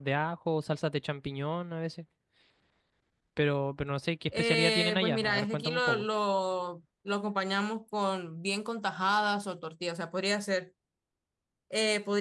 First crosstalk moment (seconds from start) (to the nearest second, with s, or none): 4 s